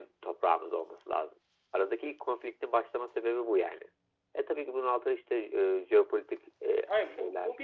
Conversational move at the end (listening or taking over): taking over